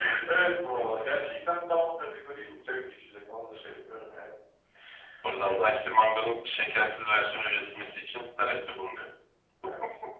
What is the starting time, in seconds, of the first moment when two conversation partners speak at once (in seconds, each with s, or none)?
none